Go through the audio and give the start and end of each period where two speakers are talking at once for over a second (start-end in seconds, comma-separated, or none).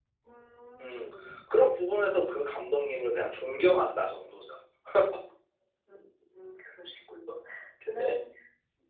none